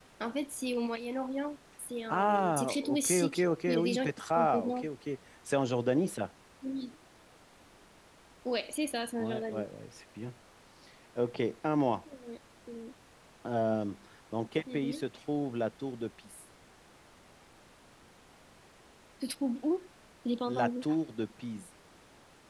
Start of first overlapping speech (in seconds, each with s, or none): 2.1 s